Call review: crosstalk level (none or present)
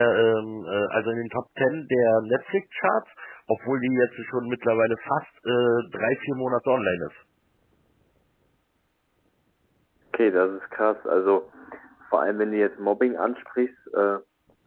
none